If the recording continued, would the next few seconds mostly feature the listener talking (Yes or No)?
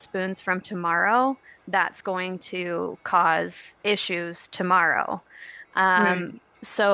No